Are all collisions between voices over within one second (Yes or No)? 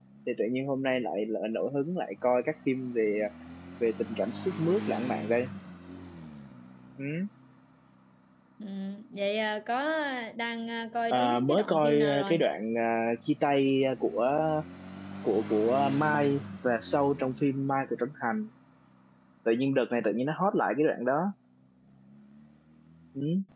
No